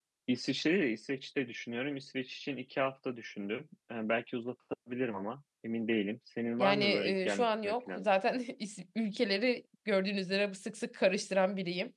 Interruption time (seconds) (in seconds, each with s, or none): 6.6 s